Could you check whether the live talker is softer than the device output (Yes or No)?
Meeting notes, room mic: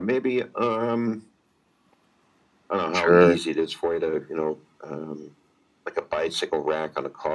No